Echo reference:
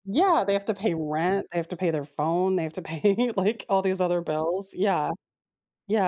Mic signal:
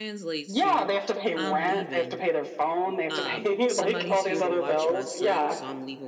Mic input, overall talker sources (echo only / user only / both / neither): both